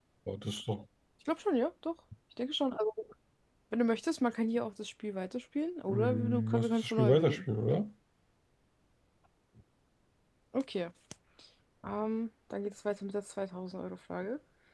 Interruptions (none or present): present